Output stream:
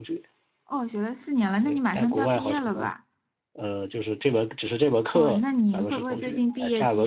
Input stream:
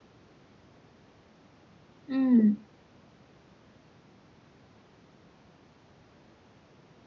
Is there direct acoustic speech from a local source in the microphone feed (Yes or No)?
Yes